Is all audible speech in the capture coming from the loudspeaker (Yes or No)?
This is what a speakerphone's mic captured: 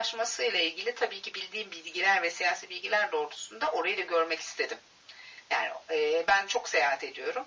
Yes